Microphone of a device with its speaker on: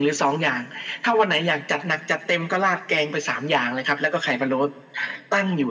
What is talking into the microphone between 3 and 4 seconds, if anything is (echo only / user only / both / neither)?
echo only